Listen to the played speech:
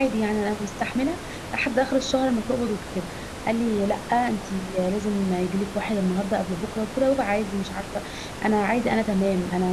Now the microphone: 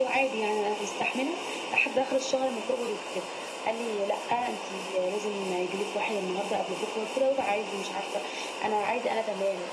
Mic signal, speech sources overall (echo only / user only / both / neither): echo only